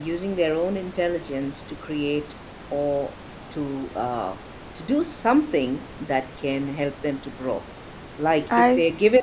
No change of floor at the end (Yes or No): Yes